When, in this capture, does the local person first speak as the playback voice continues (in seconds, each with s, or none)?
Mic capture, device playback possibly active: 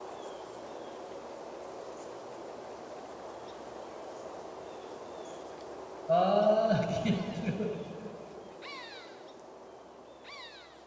6.1 s